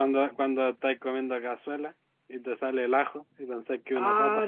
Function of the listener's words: taking over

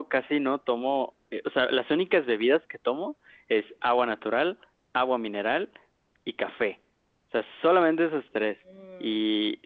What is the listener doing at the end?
listening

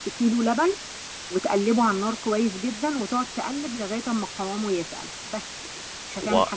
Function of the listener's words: taking over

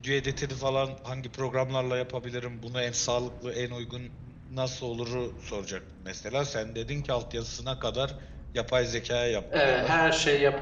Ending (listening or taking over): taking over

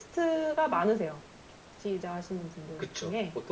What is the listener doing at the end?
taking over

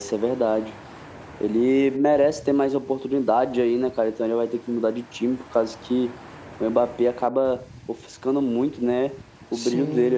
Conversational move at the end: taking over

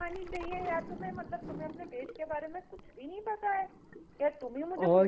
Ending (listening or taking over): listening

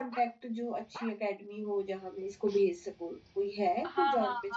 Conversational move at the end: taking over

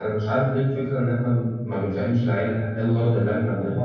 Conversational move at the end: taking over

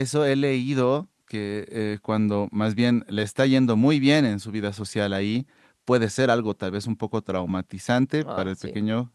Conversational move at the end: listening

